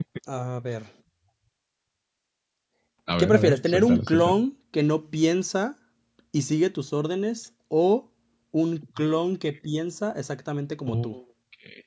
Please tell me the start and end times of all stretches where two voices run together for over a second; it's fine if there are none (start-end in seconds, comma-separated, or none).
3.2-4.4